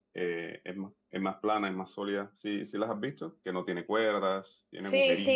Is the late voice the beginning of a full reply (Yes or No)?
Yes